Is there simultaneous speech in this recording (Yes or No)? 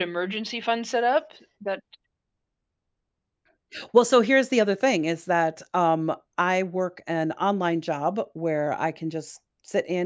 No